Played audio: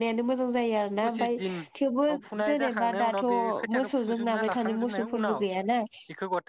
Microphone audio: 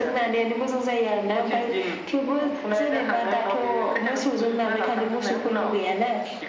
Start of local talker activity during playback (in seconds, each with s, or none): none